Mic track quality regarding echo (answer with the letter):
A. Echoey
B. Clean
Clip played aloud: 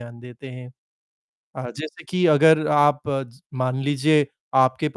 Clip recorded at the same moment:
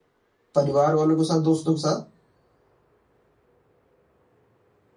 B